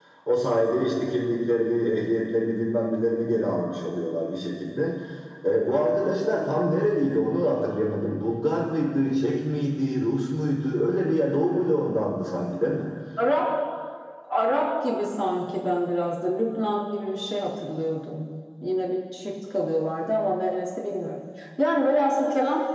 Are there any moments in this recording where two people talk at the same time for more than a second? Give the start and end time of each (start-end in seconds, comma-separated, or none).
none